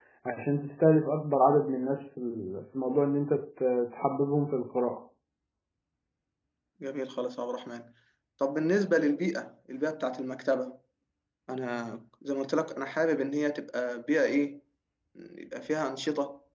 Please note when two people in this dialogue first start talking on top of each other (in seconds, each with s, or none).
none